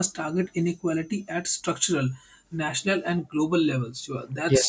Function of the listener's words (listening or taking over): listening